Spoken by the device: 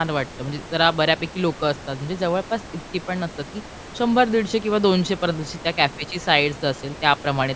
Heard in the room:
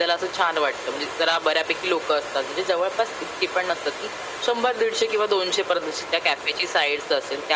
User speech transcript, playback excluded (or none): none